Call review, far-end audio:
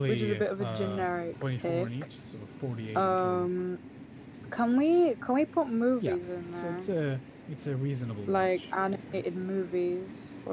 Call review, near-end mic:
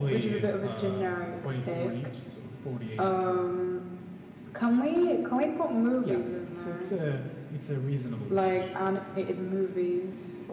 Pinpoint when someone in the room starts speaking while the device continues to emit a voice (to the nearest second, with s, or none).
none